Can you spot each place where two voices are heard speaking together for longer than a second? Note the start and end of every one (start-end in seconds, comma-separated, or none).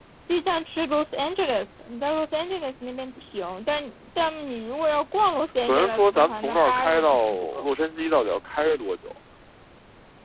5.6-7.7